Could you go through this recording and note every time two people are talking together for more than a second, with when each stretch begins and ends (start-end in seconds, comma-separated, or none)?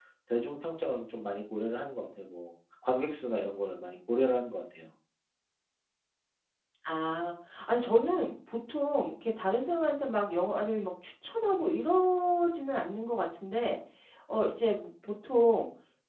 none